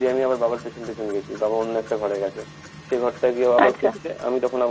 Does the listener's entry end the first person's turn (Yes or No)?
No